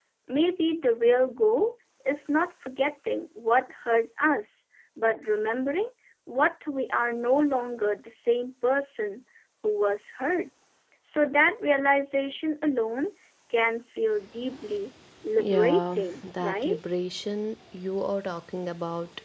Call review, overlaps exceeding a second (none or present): present